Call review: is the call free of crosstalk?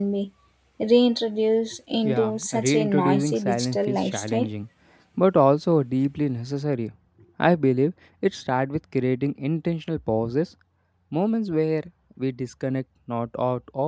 No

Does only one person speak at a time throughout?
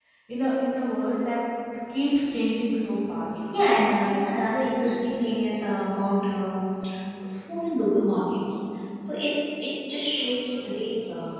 Yes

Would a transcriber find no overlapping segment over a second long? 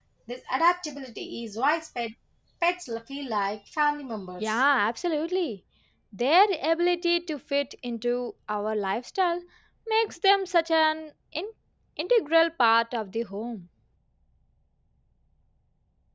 Yes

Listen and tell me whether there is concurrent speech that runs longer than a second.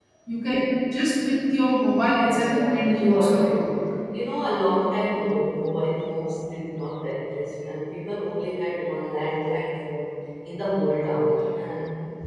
Yes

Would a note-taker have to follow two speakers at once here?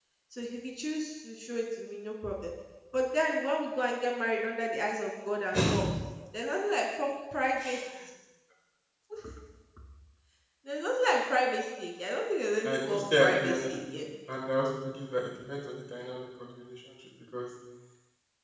Yes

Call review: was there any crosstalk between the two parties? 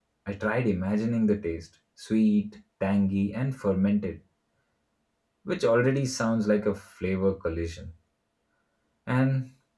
No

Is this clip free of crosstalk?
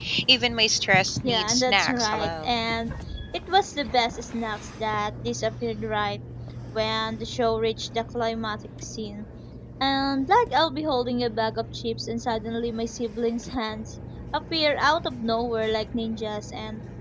No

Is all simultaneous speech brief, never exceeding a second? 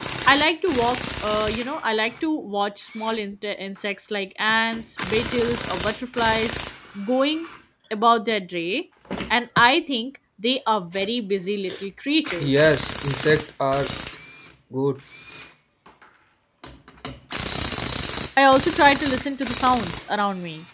Yes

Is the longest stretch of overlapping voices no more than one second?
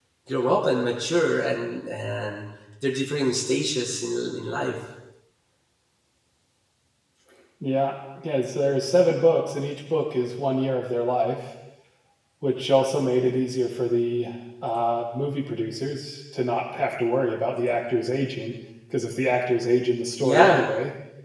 Yes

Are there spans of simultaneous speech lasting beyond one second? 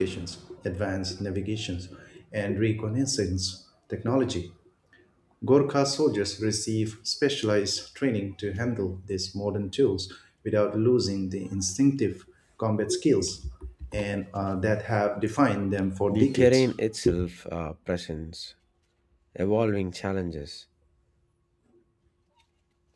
No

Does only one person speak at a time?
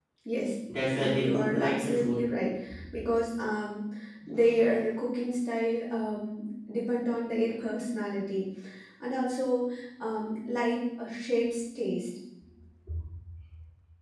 No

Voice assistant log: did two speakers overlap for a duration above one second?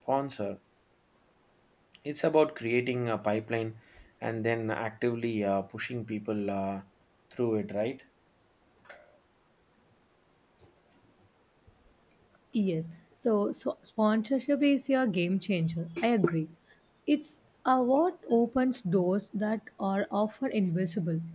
No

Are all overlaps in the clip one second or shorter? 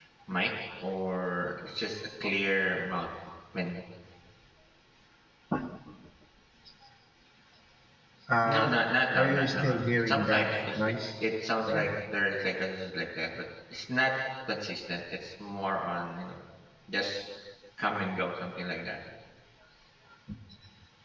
No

